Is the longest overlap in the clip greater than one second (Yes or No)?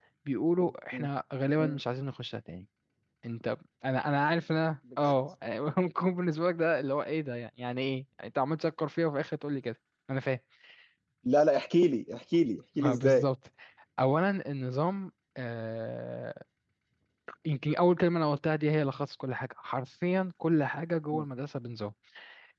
No